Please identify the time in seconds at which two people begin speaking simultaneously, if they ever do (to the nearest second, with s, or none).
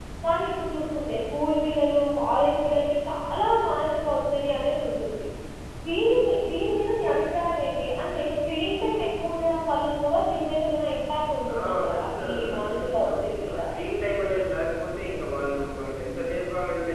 11 s